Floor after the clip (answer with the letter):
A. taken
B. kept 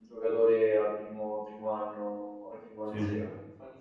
B